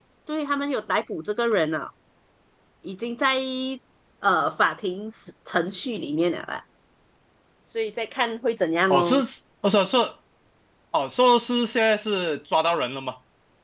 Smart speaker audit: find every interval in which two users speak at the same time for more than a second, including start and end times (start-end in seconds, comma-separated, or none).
none